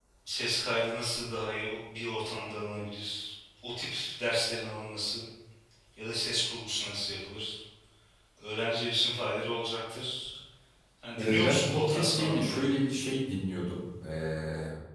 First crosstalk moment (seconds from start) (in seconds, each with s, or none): 11.2 s